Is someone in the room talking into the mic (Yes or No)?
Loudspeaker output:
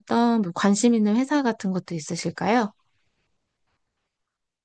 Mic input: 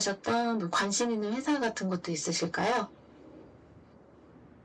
No